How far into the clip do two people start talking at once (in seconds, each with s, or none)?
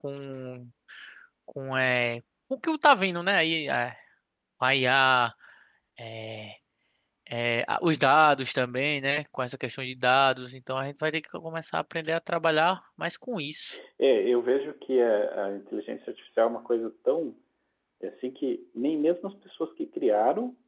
none